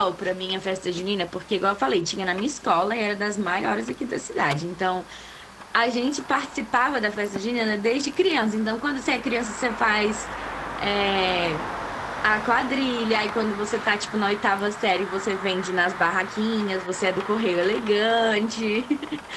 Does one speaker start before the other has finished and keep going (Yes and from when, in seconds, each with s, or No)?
No